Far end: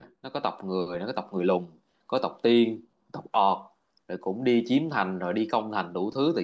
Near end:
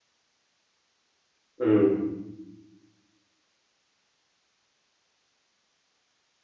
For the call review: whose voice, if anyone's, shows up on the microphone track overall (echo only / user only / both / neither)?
user only